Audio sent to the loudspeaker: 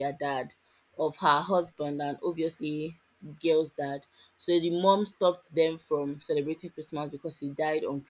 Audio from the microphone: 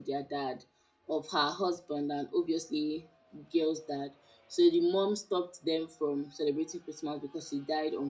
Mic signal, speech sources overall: echo only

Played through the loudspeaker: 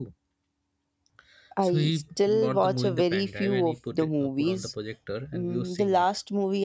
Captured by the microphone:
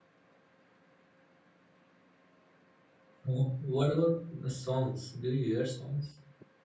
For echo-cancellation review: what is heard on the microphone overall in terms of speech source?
user only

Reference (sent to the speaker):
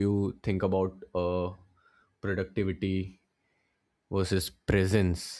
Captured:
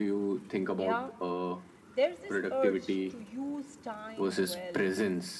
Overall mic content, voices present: both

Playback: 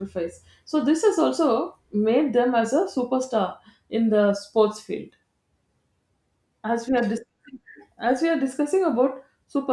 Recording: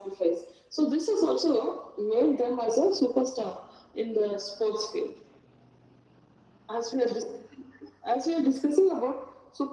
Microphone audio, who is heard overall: echo only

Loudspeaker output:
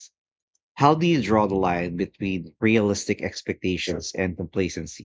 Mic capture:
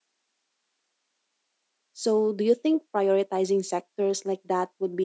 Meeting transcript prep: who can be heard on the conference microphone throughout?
user only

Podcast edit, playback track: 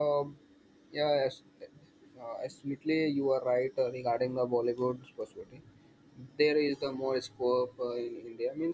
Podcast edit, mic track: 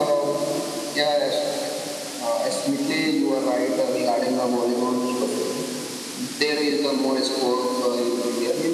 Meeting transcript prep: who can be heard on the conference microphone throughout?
echo only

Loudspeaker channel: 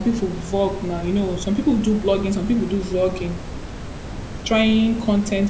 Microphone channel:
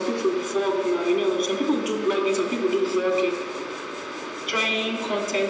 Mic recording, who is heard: echo only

